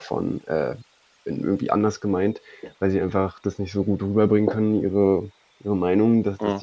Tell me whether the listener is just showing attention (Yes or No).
Yes